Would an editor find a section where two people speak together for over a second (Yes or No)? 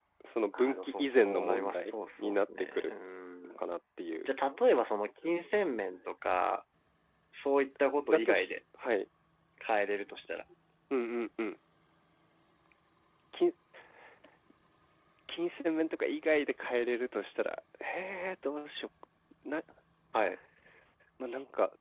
Yes